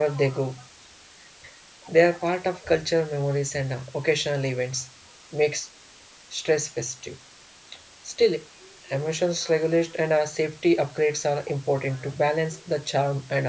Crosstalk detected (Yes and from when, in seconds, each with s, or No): No